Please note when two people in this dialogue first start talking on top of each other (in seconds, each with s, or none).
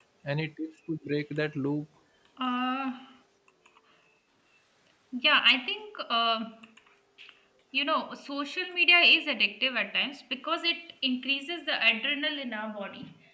none